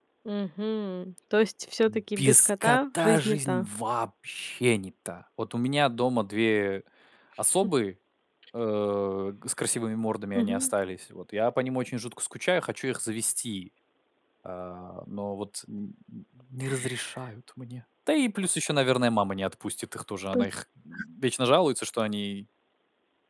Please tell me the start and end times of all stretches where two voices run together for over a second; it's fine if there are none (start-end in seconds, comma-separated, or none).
1.9-3.7